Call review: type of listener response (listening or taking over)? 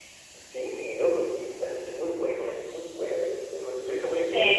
taking over